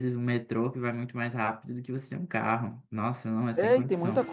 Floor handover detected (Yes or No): Yes